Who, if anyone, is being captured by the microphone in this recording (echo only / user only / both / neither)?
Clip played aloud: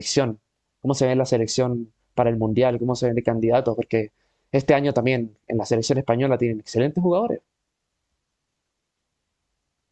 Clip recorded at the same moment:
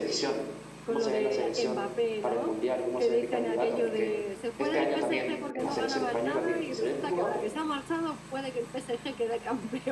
both